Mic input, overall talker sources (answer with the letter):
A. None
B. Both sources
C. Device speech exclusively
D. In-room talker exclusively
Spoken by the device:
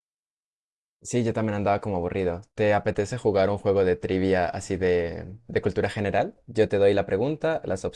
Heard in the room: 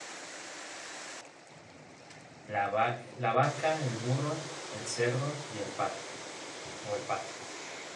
D